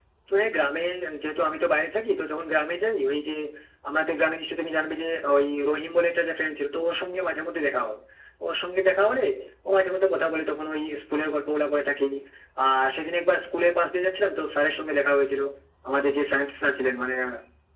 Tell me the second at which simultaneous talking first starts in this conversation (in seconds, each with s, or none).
none